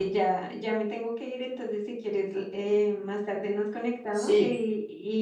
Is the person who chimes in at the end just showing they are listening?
Yes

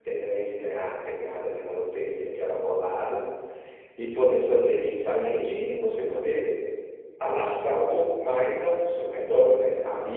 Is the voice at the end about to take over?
No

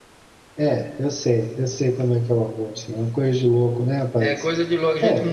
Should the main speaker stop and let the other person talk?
Yes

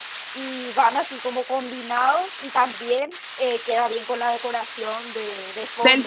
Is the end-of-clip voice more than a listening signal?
Yes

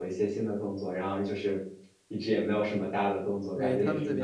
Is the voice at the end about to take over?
Yes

